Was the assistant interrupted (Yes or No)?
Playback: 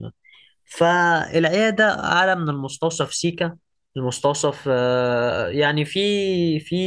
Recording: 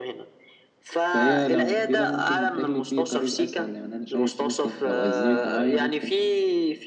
Yes